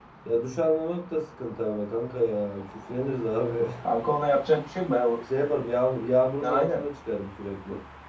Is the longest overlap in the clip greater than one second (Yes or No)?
No